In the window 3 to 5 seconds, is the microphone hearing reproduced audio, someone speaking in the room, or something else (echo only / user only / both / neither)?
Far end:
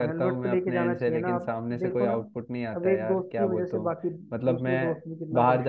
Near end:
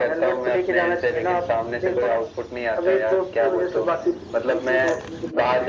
echo only